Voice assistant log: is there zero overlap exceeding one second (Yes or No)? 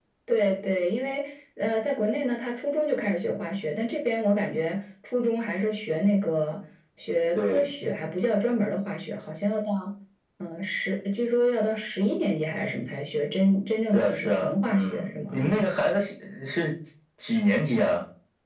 No